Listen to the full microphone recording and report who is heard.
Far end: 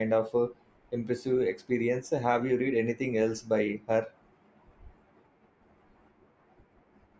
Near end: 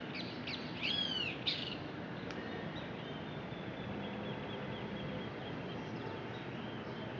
neither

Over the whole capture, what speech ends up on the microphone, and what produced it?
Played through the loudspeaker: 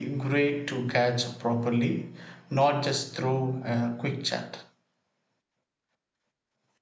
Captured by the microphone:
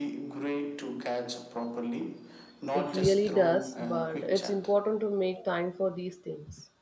both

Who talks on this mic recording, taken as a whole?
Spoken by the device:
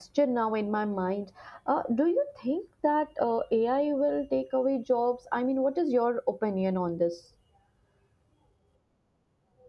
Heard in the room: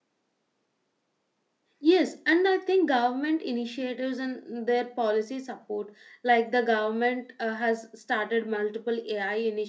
user only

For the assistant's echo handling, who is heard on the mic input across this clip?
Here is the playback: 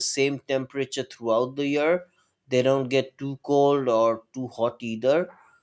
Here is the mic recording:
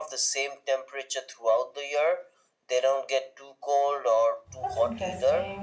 both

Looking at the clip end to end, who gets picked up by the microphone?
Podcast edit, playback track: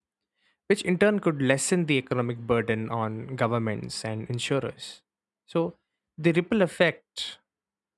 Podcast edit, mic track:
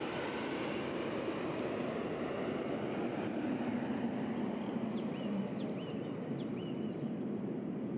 neither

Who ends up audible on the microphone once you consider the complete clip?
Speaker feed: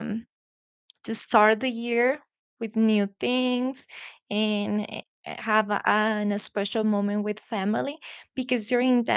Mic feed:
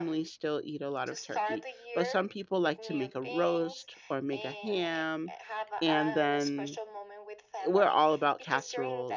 both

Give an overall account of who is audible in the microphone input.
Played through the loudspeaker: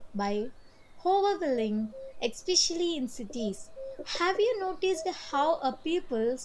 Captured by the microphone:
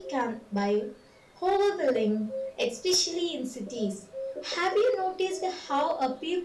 echo only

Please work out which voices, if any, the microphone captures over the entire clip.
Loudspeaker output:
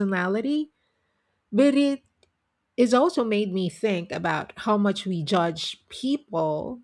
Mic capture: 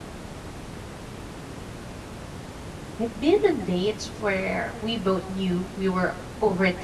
user only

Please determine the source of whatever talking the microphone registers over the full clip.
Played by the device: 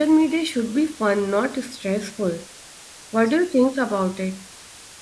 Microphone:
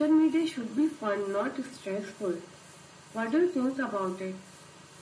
echo only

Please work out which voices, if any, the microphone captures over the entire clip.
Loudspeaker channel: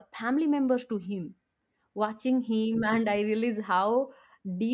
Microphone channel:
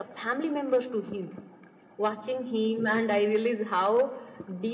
echo only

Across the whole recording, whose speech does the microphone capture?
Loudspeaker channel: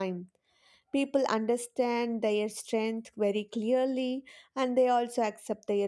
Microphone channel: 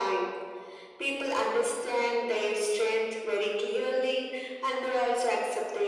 echo only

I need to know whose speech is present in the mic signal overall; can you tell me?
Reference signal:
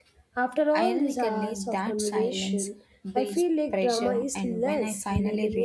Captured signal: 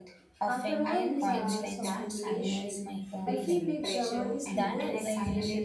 both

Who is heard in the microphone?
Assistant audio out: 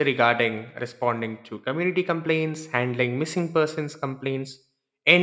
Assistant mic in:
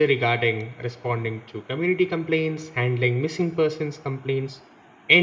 echo only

